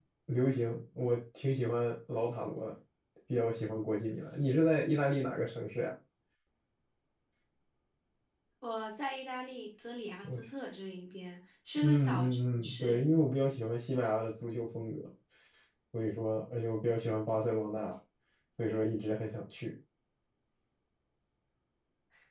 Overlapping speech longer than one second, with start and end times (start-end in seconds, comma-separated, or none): 11.8-13.0